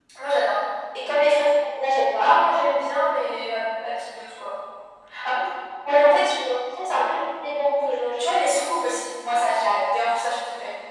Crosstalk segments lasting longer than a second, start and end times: none

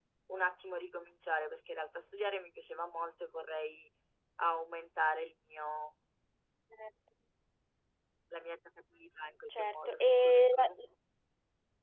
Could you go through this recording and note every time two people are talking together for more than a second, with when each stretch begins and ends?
9.5-10.7

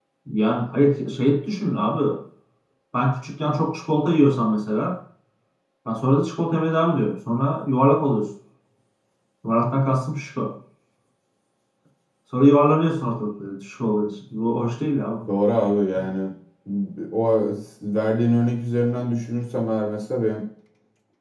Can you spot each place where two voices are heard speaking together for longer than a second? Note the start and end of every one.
none

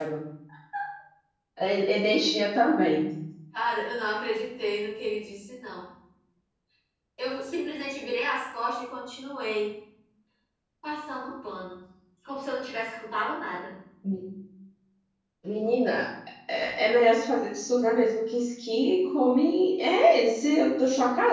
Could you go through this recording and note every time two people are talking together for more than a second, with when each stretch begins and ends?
none

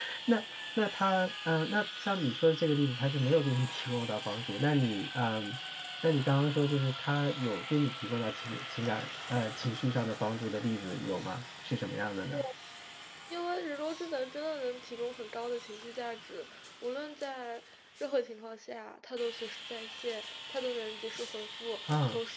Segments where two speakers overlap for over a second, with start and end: none

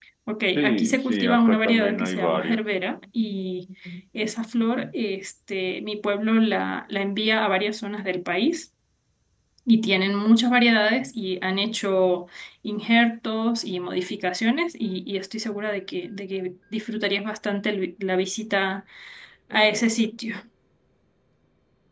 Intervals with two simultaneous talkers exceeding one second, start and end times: 0.6-2.6

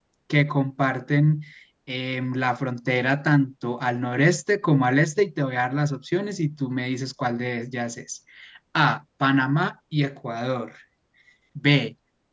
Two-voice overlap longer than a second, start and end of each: none

